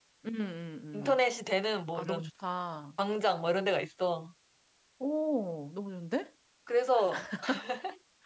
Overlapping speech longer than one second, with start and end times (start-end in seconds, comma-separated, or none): none